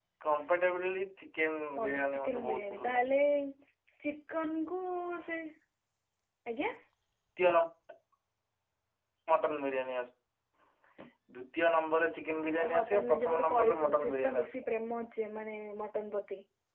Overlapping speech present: Yes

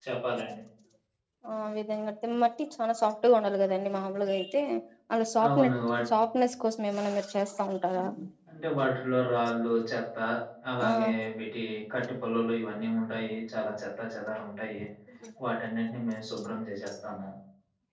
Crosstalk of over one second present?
No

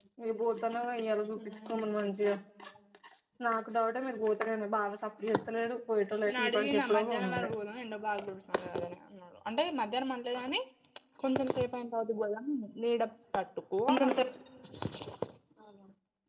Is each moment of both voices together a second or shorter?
No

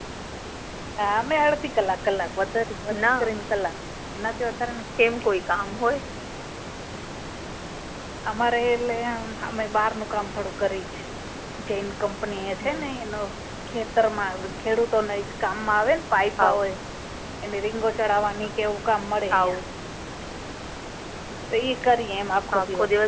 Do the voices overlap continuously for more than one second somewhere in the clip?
No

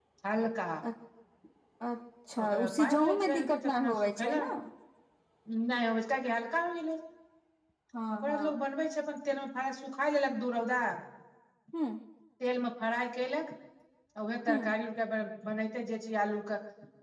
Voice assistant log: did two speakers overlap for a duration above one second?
Yes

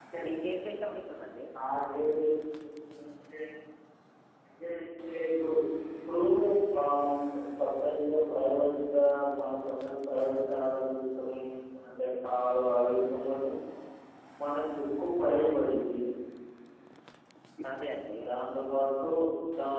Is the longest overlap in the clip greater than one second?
No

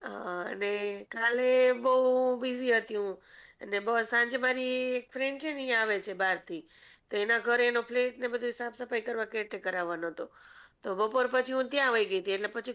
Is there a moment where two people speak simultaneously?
No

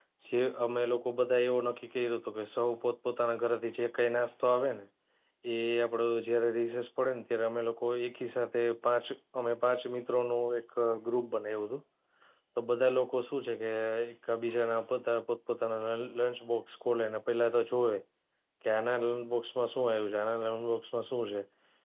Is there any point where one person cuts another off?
No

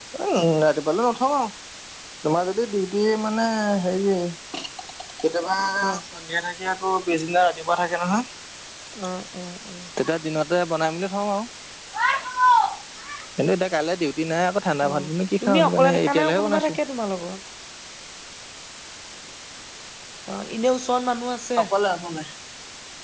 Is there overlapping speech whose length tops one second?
Yes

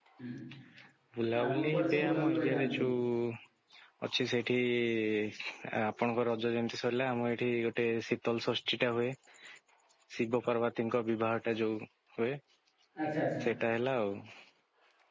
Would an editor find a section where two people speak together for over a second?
Yes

